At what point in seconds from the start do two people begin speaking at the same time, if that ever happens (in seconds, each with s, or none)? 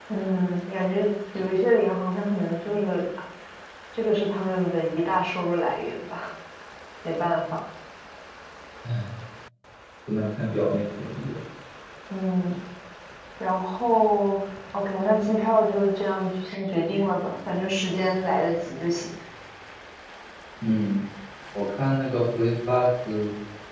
none